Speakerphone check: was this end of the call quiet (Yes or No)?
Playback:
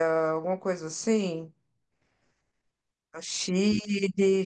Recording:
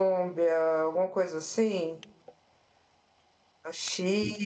Yes